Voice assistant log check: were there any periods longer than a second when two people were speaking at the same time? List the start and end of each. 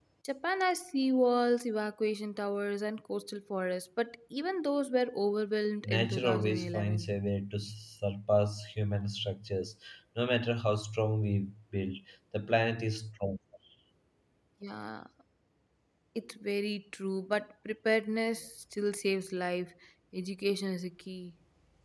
5.8-7.1

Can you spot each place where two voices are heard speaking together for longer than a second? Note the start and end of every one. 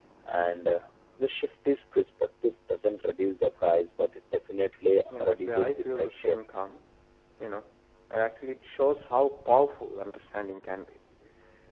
5.2-6.4

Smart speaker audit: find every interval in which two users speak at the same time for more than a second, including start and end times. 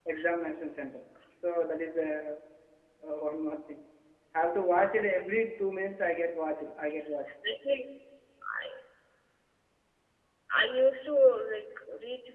none

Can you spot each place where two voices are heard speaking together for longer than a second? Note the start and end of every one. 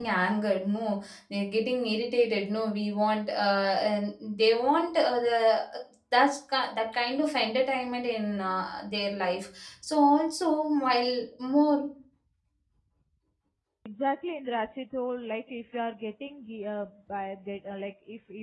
none

